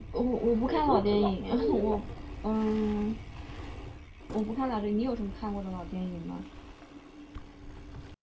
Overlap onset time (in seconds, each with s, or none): 0.7 s